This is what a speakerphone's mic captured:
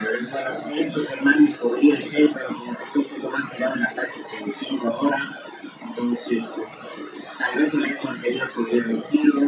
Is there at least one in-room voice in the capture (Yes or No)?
No